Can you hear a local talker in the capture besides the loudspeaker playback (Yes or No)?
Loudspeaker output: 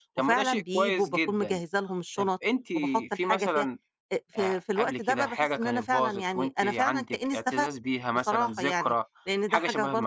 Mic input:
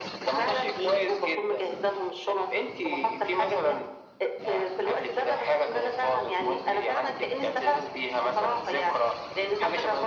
No